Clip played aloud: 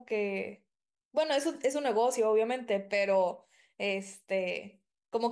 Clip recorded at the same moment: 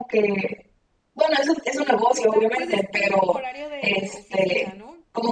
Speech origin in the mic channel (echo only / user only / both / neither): both